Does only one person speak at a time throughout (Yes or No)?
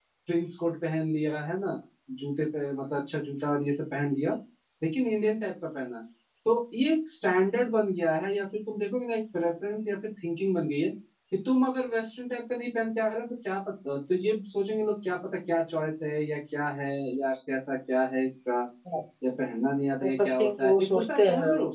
No